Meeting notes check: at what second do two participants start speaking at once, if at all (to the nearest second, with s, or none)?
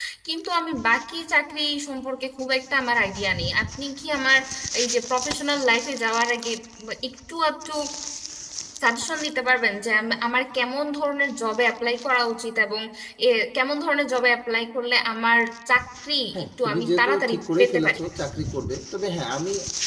16 s